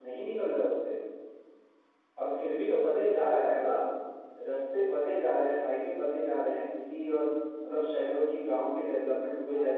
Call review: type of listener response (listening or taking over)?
taking over